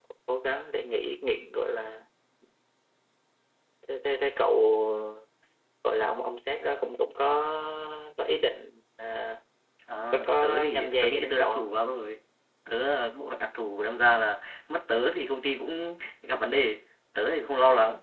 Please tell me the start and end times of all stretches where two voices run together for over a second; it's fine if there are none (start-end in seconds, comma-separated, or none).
10.1-11.6